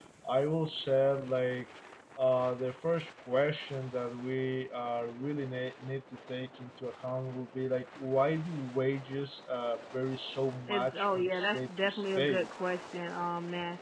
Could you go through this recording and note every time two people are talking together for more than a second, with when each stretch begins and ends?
10.7-12.5

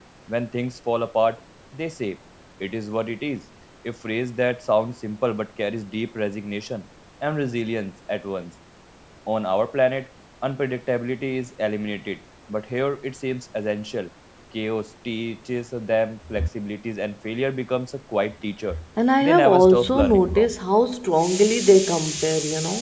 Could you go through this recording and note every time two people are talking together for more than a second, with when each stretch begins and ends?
19.2-20.6

